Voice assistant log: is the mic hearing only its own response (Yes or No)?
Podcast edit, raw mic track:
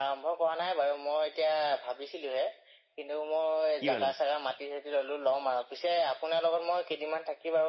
No